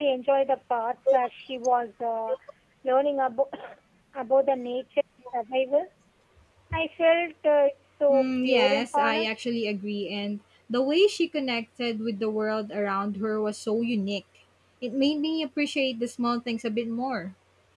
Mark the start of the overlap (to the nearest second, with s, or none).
8 s